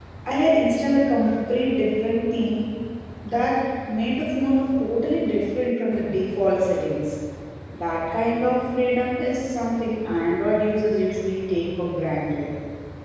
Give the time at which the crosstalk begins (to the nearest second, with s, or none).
none